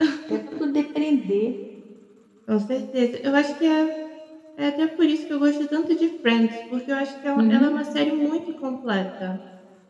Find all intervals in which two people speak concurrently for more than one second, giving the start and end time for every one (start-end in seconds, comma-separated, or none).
none